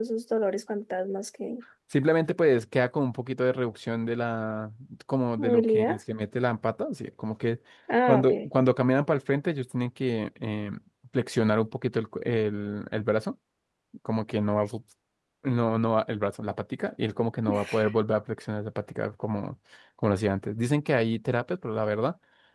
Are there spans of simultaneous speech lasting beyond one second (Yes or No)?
No